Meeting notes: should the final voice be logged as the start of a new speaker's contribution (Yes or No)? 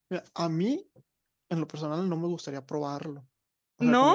No